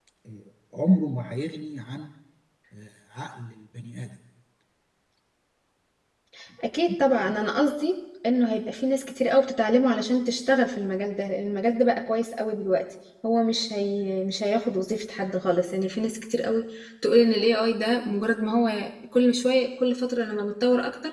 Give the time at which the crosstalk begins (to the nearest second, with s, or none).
none